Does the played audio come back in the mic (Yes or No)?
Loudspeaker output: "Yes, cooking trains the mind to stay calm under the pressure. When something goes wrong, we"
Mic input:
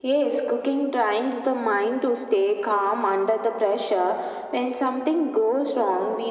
Yes